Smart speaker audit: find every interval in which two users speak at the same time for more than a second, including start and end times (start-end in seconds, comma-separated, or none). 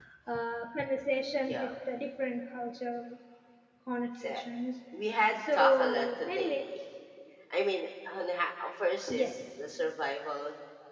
5.4-6.6